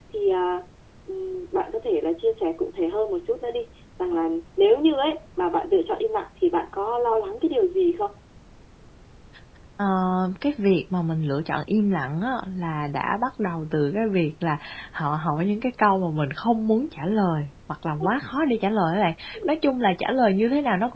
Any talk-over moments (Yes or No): No